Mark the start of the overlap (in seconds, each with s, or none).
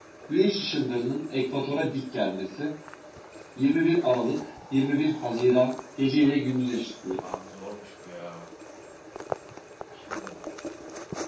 none